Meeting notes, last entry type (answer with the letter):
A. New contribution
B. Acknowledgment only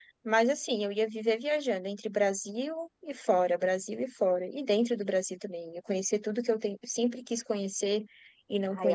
A